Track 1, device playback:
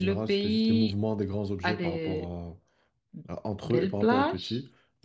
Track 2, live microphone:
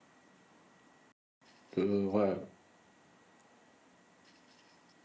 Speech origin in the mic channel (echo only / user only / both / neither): user only